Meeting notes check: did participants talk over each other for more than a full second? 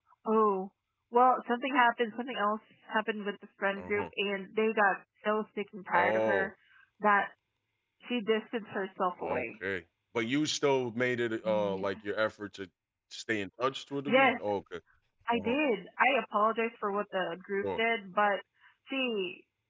No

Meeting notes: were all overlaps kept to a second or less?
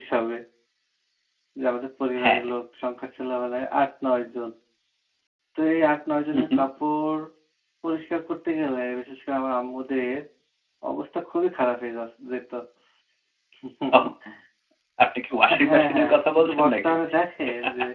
No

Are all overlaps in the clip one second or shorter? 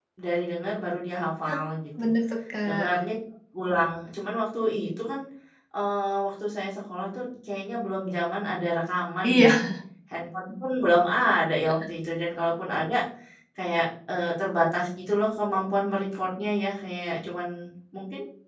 Yes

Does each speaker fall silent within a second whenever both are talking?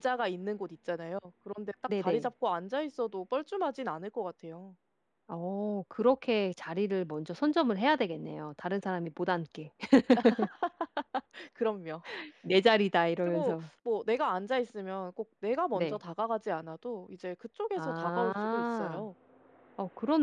No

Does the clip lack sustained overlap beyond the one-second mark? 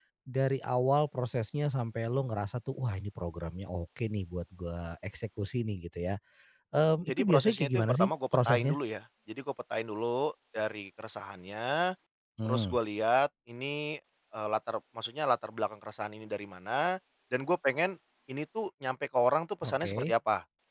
No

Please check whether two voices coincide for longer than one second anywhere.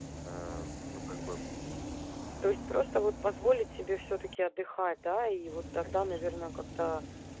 No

